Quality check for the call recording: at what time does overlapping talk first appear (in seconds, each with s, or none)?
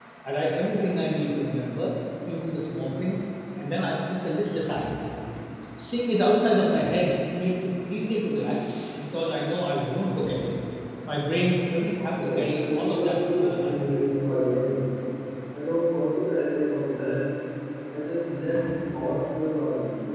12.2 s